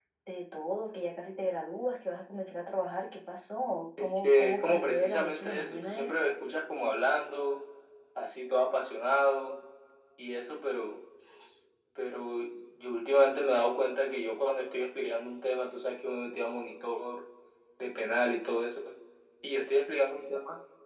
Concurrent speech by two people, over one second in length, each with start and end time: 4.0-6.2

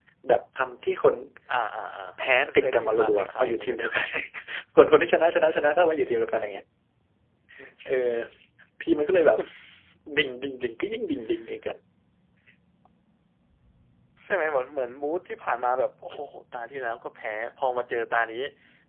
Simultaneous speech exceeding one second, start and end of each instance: 2.4-3.9

